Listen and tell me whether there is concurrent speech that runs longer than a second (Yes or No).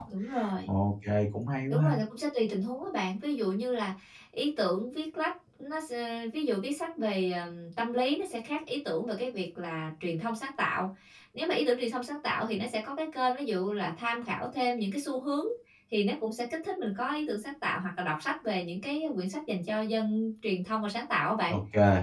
No